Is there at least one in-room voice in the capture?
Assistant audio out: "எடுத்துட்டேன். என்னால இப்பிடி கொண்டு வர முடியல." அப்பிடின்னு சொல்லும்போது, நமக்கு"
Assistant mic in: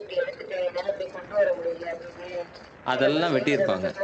Yes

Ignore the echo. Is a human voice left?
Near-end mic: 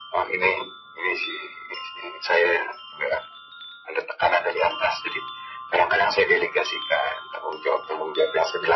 No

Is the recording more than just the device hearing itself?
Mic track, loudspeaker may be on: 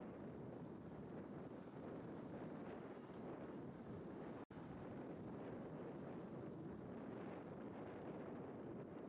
No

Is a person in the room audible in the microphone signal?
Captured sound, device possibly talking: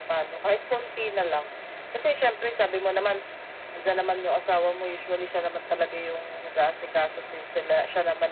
No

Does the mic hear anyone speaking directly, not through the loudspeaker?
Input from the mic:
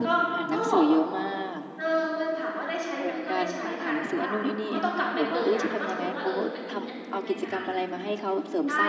Yes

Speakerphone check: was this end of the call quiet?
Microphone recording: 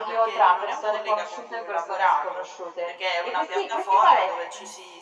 Yes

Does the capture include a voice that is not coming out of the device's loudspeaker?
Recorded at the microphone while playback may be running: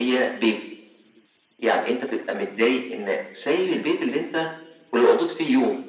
No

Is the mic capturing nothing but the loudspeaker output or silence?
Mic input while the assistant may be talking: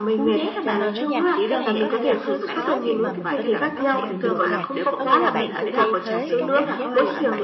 No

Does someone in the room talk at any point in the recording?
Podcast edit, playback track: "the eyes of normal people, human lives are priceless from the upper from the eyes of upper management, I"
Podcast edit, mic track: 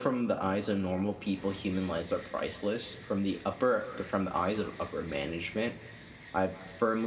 No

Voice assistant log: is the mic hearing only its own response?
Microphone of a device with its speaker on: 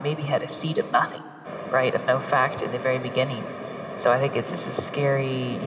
Yes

